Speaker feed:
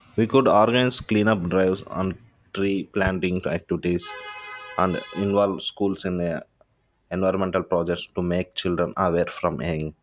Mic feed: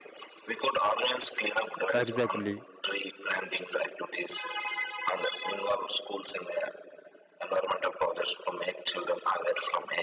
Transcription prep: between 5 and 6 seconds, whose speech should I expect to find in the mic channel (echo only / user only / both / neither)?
echo only